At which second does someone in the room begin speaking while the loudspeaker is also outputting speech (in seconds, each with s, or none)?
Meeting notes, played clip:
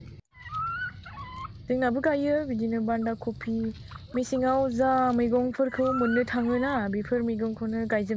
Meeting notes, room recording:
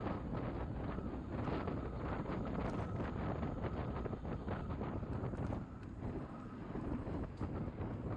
none